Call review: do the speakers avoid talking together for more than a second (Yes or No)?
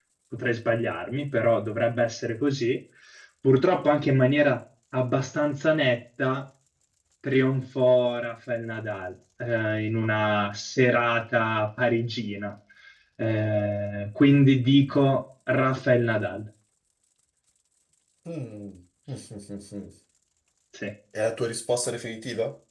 Yes